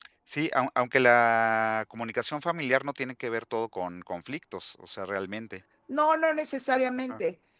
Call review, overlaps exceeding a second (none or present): none